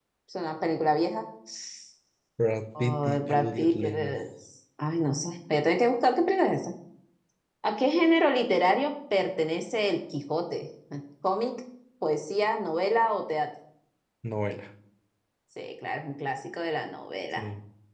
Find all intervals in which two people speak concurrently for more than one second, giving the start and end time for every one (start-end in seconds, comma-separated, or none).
2.8-4.2